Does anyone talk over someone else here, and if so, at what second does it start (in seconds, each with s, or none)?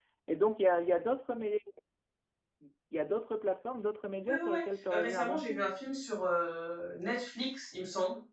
4.2 s